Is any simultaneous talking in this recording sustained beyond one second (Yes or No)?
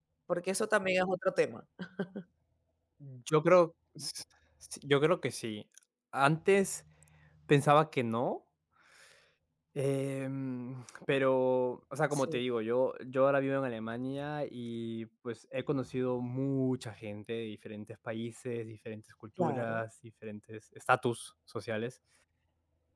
No